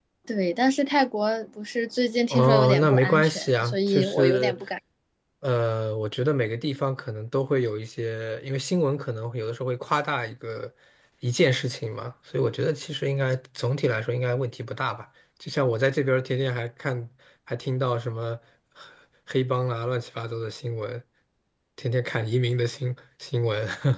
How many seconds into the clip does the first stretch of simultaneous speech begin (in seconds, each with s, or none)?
2.3 s